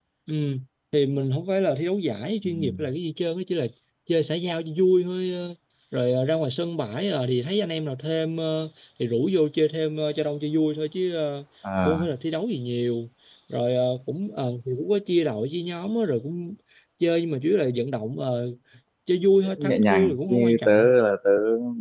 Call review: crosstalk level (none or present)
present